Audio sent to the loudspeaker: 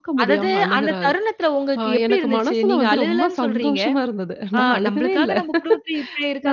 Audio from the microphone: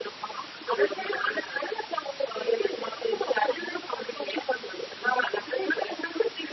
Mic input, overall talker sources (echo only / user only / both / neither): echo only